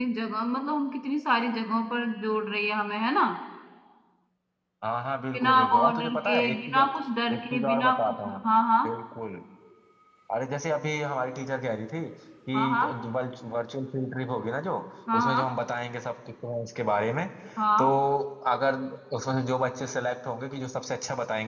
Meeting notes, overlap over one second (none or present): present